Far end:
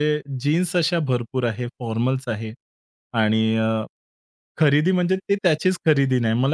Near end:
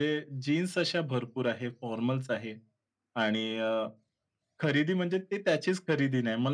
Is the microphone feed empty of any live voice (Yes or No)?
Yes